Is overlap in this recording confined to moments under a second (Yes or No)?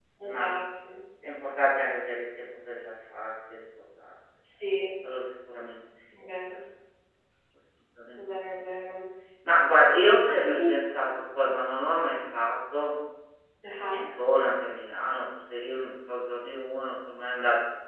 Yes